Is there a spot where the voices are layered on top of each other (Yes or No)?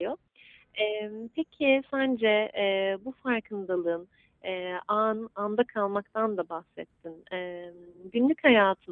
No